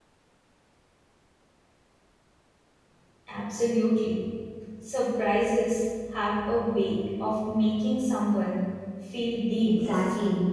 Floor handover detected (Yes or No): Yes